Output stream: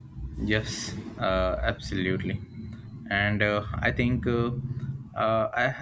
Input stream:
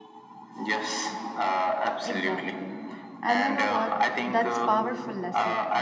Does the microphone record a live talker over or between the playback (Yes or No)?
Yes